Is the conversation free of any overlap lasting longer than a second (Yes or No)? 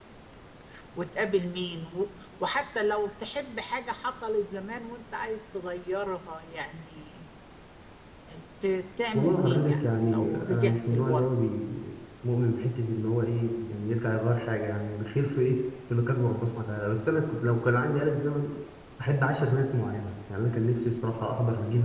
No